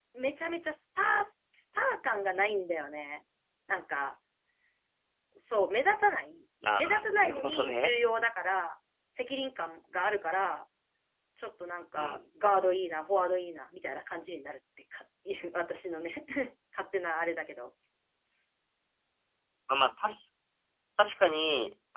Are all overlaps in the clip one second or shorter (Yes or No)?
No